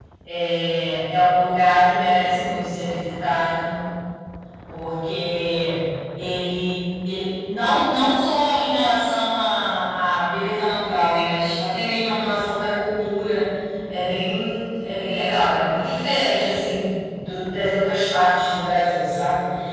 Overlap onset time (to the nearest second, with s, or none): none